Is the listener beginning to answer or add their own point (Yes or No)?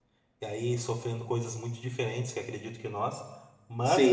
Yes